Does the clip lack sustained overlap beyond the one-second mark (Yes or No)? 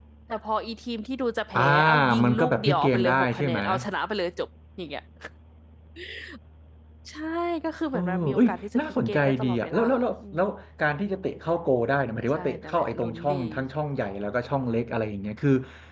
No